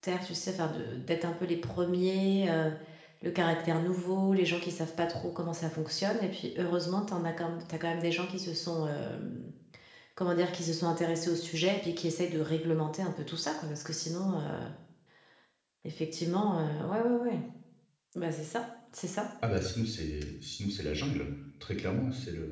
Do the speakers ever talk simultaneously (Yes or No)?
No